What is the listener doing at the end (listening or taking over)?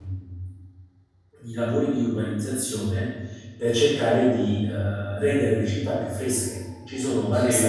listening